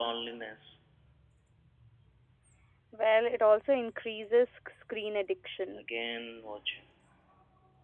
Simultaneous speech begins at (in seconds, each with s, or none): none